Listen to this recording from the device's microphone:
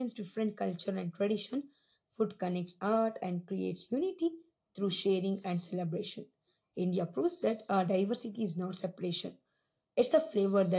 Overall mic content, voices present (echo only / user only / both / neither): echo only